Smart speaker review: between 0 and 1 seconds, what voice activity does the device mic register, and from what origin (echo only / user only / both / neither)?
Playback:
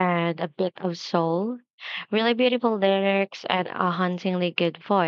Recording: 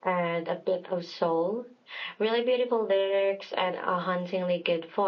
echo only